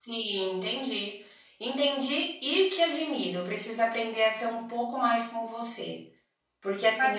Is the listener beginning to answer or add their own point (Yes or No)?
No